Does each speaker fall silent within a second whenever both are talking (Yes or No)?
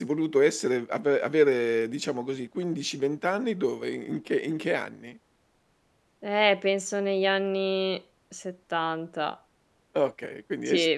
Yes